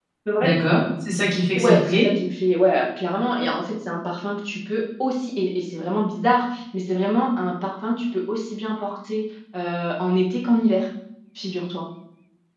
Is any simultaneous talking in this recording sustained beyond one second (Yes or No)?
No